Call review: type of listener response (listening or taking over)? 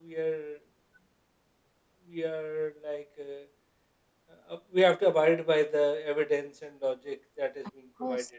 taking over